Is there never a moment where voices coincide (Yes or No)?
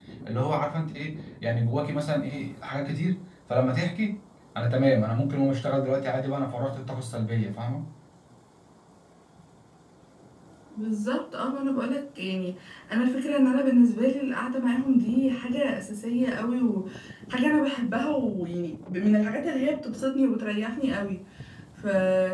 Yes